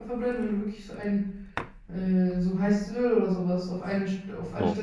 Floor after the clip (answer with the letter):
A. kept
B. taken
B